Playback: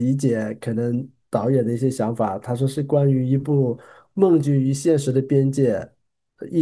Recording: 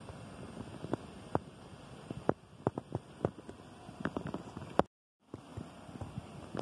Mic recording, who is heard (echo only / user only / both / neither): neither